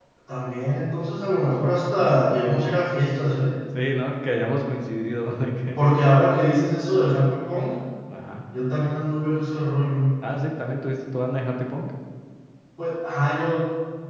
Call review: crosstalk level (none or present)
none